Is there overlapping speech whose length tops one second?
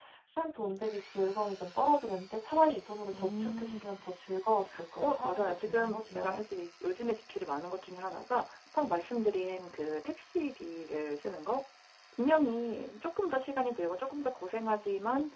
Yes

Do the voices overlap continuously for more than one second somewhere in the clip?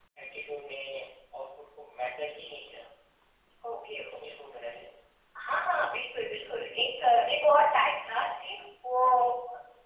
No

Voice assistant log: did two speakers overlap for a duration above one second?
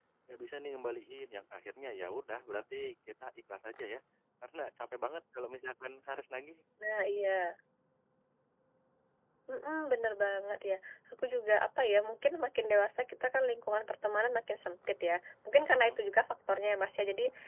No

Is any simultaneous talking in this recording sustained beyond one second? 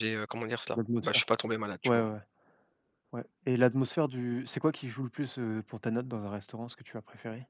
No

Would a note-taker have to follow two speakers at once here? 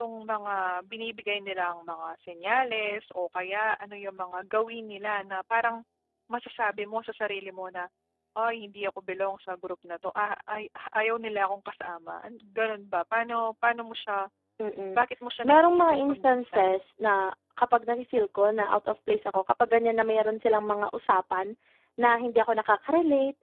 Yes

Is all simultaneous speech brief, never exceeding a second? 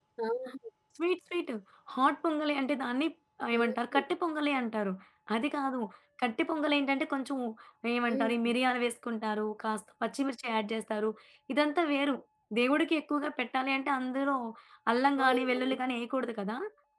Yes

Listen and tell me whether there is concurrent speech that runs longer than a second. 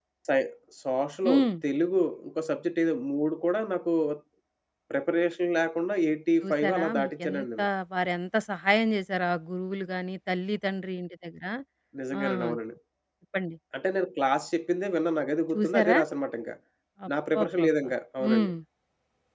Yes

